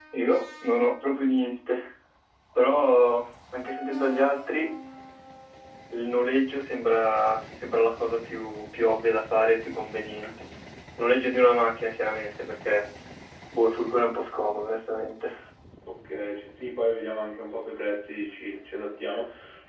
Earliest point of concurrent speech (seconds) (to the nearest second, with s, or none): none